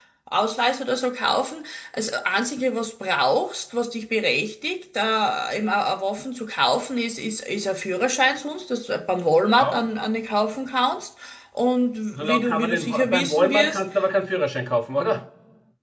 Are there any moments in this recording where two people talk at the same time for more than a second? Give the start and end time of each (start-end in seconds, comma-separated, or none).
12.1-13.8